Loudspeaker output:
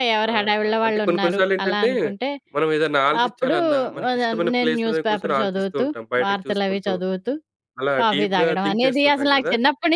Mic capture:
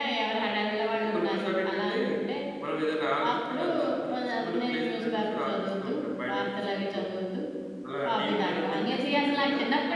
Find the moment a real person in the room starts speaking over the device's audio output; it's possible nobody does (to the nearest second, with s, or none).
none